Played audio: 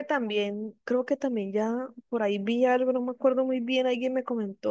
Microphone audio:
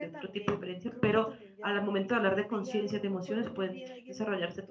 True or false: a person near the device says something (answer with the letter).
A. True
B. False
A